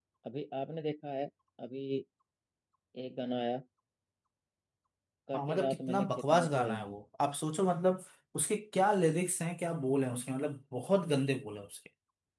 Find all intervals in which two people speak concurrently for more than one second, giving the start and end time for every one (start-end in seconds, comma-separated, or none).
5.3-6.9